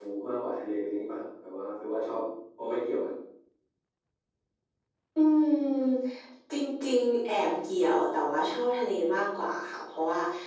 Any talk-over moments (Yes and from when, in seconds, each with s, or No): No